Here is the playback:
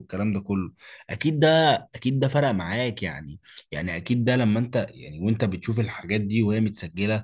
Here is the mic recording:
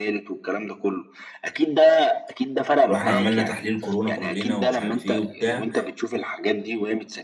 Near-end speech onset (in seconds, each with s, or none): 2.9 s